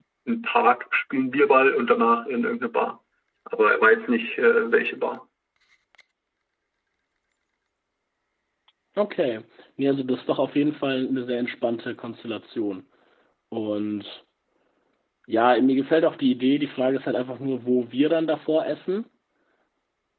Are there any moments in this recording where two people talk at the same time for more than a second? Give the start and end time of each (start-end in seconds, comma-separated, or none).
none